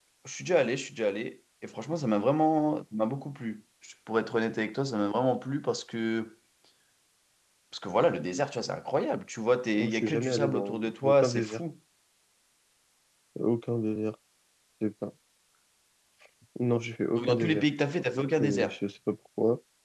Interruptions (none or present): present